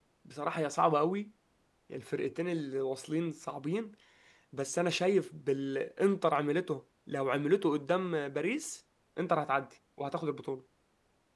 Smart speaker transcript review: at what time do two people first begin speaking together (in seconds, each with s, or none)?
none